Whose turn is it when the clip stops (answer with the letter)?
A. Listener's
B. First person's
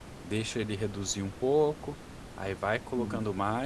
B